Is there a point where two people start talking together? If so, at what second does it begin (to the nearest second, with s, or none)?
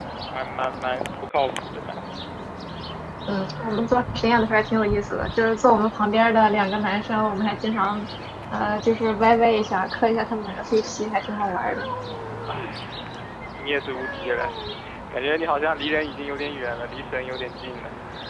none